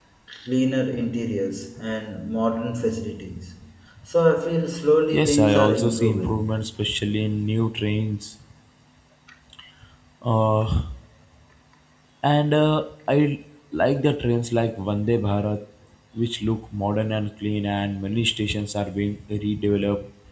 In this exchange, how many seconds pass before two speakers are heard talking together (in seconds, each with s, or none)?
5.1 s